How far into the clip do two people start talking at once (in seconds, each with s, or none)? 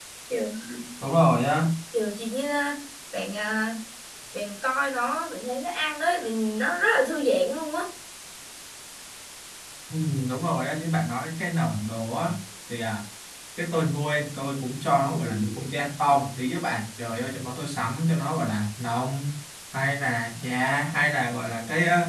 none